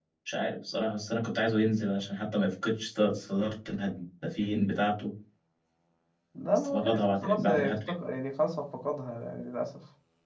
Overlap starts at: 7 s

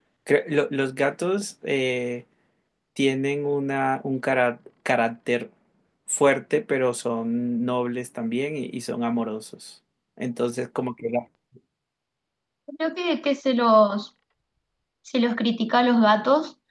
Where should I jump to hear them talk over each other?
none

